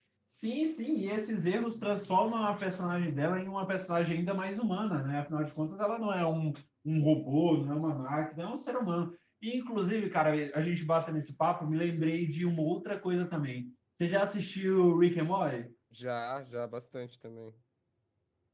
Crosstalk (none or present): none